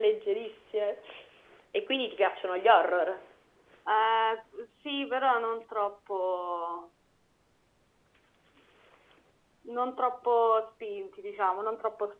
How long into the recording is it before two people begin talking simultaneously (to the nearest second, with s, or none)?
none